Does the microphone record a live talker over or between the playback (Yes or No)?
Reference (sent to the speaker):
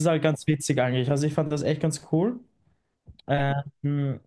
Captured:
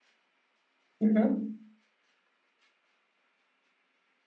Yes